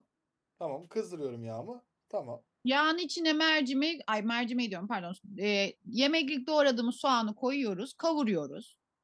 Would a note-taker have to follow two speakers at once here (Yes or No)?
No